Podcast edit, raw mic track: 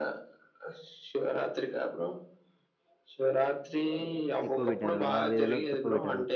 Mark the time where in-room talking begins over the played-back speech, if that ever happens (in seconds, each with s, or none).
4.5 s